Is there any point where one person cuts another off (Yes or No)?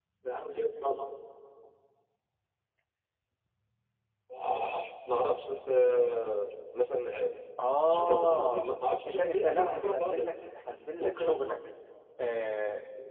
Yes